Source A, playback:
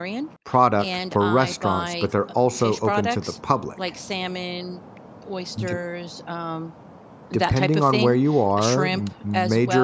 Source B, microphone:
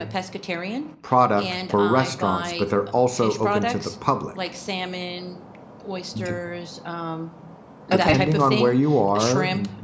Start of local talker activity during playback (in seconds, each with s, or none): 7.9 s